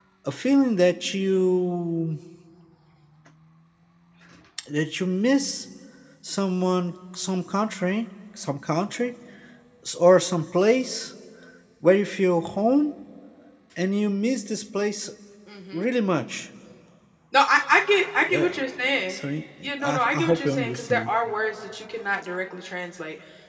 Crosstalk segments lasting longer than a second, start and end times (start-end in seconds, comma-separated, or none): 19.8-21.1